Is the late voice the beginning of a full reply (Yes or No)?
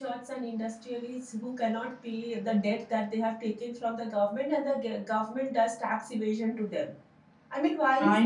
No